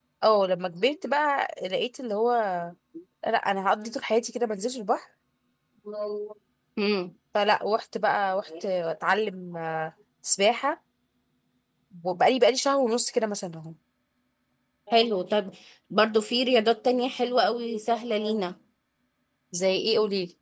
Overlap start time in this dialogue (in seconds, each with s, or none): none